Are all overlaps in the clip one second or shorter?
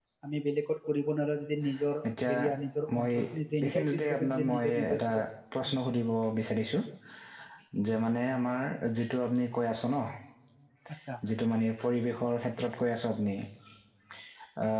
No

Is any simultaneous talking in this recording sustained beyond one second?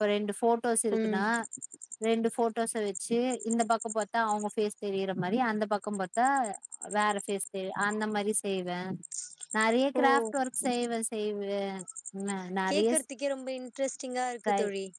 No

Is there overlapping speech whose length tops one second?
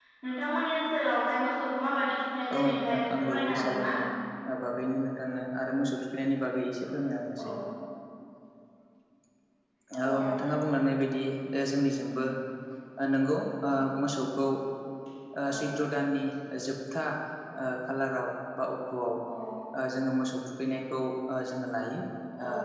Yes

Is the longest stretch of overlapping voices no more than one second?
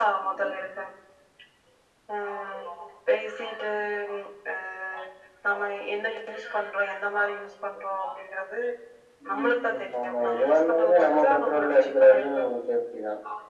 No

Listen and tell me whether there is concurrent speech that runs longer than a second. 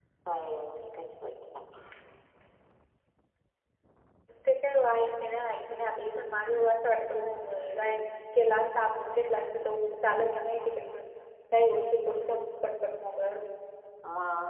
No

